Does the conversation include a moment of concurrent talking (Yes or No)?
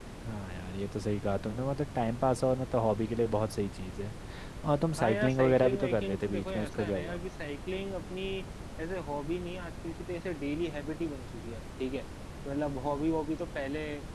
Yes